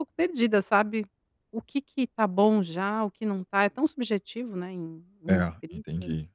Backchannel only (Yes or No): No